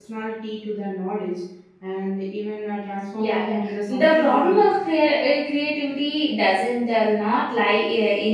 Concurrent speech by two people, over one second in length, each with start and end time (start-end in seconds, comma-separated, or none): 3.2-4.6